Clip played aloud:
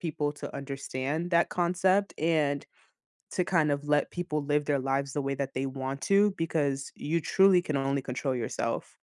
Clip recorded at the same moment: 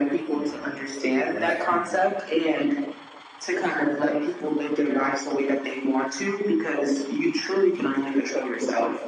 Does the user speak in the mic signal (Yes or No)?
Yes